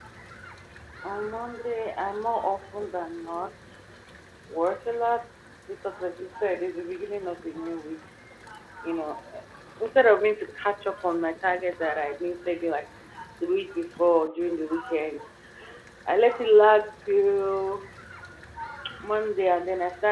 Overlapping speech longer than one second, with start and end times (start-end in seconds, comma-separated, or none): none